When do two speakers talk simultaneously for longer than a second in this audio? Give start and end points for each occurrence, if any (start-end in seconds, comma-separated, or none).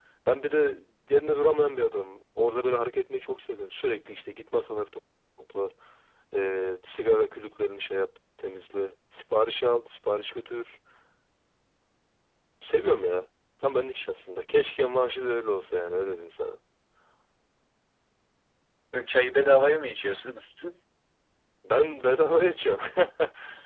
none